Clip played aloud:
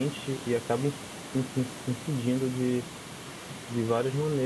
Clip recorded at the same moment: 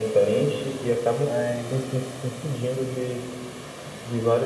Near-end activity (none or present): present